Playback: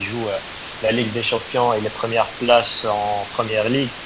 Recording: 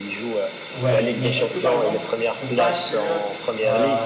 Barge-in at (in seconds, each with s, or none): 0.7 s